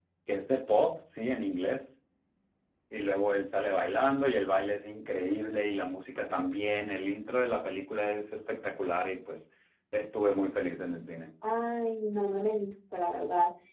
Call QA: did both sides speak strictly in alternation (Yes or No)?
Yes